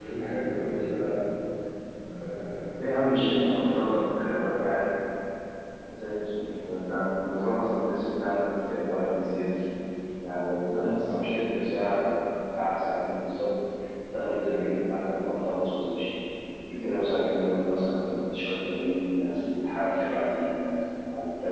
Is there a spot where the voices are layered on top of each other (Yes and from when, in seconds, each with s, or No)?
Yes, from 2.7 s